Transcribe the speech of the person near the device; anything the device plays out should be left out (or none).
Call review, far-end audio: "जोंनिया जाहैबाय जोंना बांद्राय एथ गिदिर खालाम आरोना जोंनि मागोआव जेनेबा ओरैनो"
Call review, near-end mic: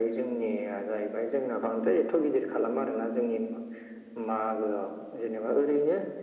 none